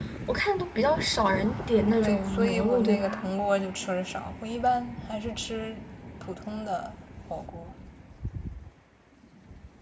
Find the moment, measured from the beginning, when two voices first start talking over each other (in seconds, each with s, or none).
1.9 s